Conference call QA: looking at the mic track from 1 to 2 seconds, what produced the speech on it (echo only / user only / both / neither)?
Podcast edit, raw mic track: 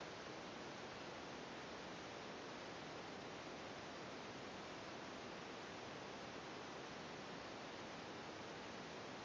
neither